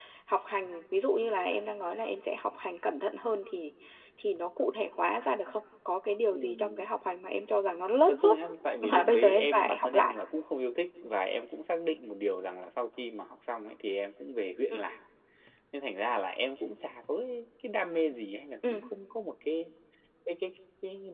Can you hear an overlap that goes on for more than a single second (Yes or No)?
Yes